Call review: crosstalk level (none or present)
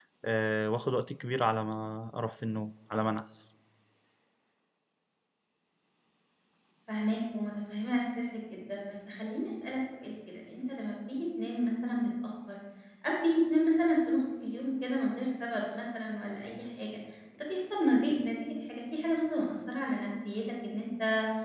none